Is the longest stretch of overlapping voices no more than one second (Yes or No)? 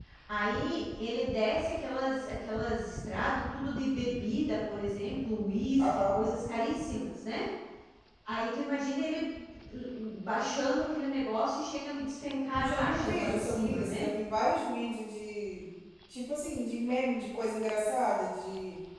No